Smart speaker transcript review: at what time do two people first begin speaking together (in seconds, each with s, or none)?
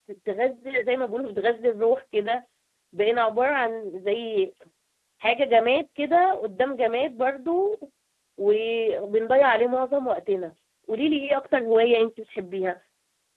none